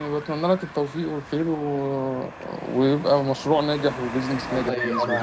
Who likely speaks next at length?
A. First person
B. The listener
B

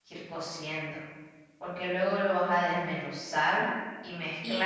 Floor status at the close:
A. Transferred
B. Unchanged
A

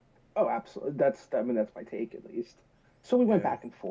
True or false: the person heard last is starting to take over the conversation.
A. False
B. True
A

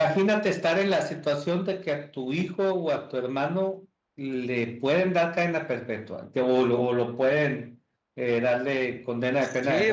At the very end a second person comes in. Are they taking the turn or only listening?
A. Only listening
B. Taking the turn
B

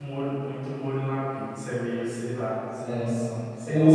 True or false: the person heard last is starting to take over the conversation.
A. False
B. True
B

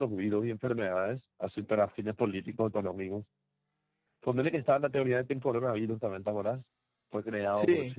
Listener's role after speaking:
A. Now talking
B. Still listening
B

